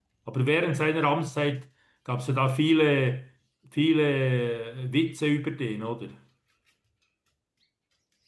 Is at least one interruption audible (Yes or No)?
No